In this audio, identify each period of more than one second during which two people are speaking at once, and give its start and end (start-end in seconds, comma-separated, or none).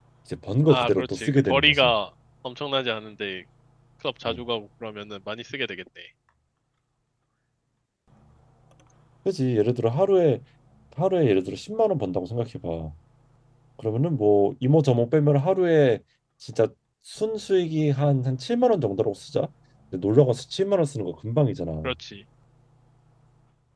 0.7-1.9